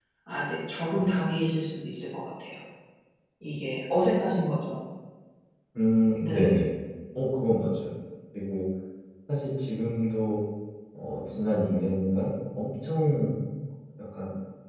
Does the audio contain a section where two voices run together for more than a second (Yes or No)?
No